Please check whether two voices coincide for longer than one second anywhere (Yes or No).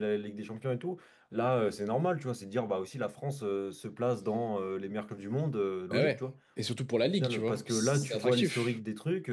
Yes